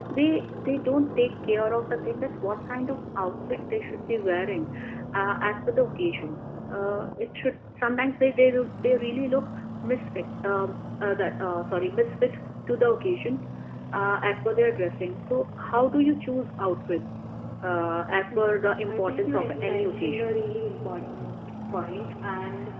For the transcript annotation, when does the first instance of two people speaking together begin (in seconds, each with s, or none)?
18.3 s